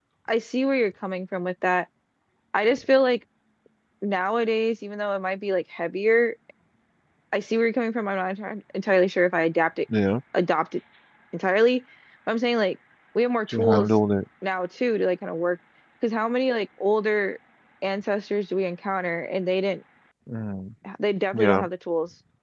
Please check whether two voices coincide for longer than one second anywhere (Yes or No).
No